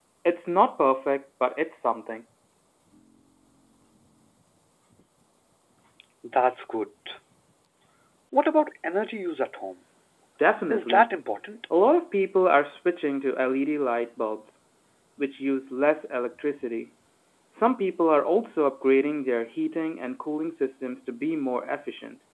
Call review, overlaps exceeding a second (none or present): none